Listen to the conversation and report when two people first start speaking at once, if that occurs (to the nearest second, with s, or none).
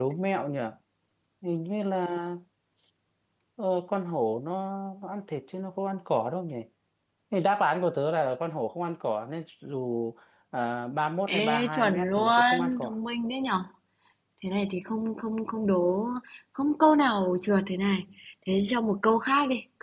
11 s